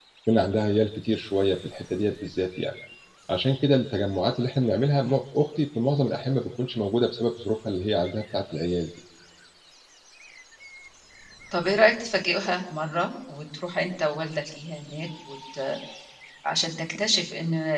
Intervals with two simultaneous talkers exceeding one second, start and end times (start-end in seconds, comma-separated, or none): none